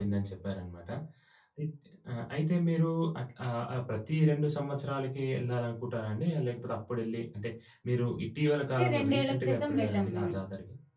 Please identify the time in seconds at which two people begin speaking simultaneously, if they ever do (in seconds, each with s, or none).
8.7 s